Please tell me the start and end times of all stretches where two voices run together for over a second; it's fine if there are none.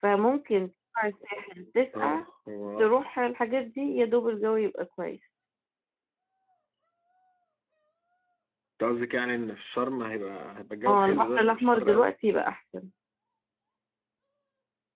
10.9-12.1

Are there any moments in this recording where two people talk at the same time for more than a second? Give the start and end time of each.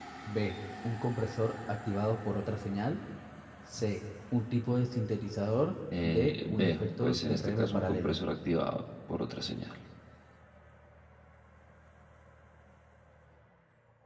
6.0-8.2

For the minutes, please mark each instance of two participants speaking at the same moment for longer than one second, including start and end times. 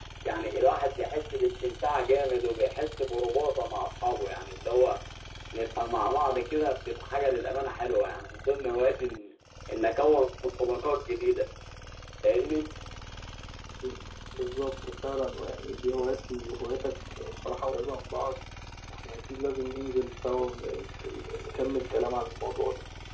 none

